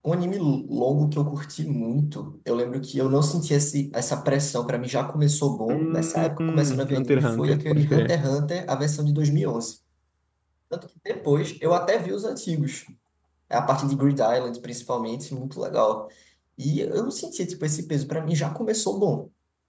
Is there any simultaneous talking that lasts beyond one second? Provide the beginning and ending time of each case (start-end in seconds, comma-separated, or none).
5.7-8.1